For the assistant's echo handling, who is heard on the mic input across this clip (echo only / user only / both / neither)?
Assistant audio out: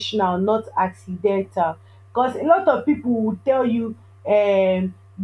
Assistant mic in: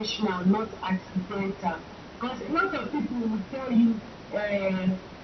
echo only